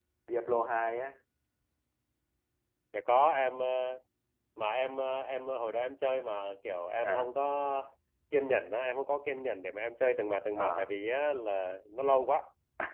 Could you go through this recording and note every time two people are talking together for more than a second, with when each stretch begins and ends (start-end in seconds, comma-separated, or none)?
none